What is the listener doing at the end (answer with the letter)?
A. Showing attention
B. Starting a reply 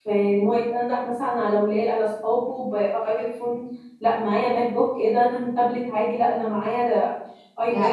B